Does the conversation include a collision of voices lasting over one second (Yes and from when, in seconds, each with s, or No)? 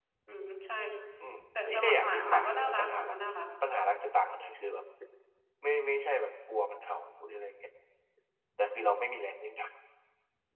Yes, from 1.6 s